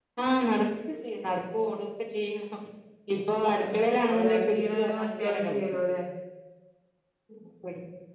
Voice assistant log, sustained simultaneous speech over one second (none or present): present